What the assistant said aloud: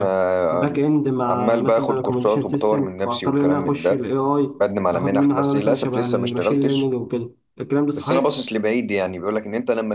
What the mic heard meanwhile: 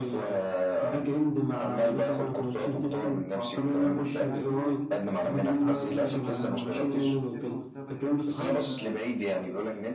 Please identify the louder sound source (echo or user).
echo